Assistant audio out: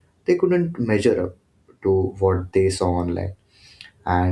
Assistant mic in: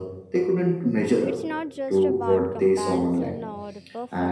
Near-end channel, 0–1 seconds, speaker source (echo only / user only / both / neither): echo only